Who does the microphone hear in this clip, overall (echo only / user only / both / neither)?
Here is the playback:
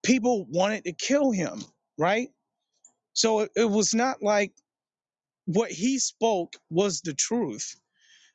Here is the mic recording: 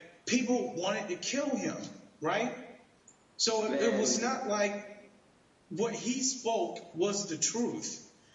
both